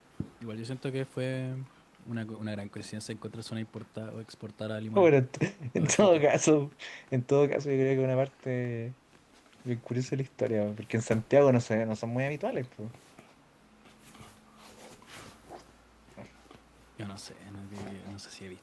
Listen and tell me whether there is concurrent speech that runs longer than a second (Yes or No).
No